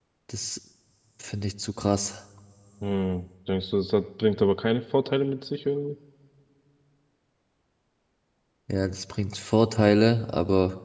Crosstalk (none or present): none